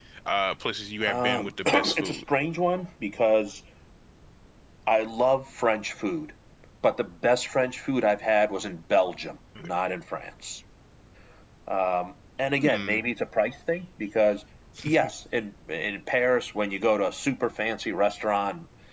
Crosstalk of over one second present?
Yes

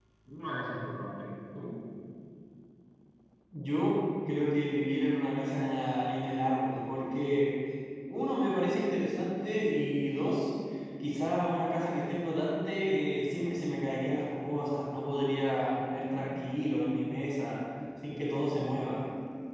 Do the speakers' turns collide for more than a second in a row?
No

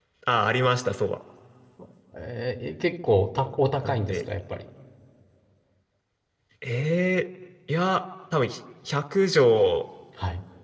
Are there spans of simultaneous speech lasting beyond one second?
No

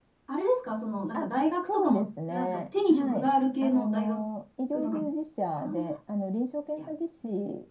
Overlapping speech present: Yes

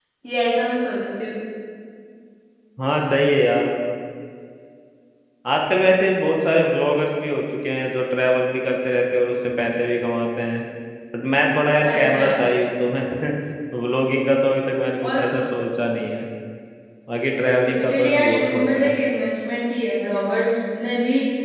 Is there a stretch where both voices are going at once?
Yes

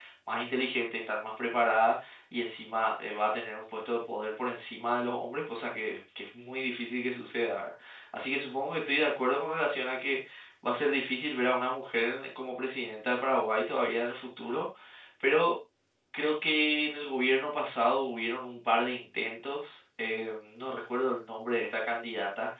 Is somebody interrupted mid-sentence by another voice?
No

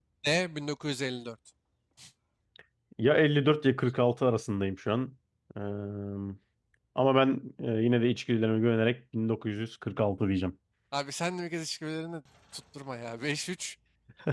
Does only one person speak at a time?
Yes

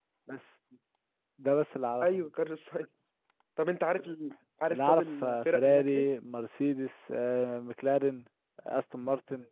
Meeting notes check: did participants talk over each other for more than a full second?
Yes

